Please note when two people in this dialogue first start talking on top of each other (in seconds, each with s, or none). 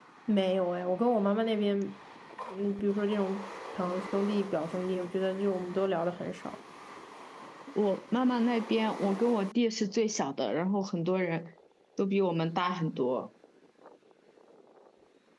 none